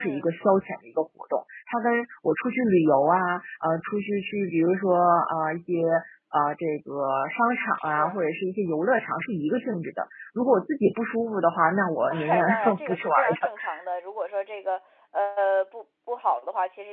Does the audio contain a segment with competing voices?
Yes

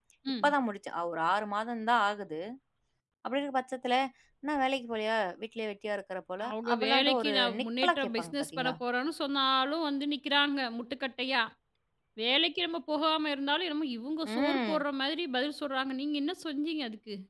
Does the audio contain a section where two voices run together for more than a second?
Yes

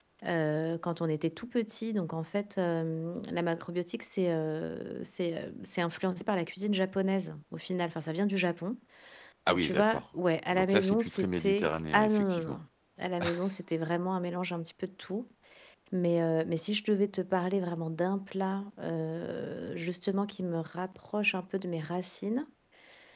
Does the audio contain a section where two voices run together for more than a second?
Yes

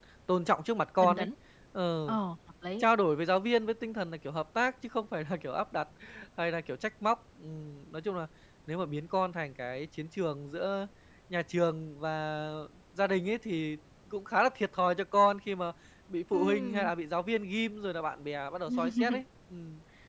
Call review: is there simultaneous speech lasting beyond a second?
No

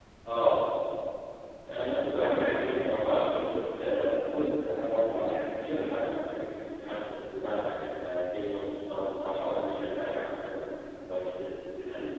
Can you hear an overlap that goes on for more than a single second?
Yes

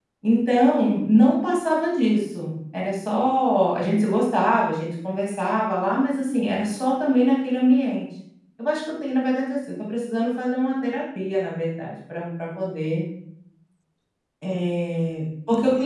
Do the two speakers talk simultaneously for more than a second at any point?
No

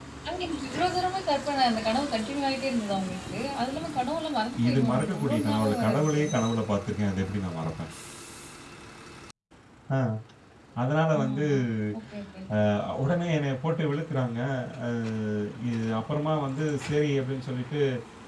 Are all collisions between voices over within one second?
No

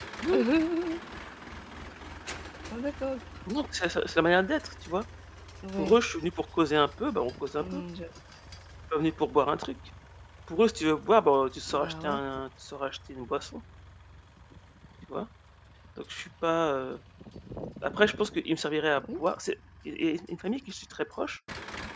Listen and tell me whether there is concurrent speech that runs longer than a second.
No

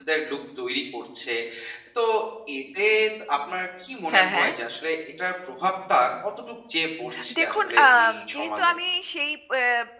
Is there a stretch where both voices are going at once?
Yes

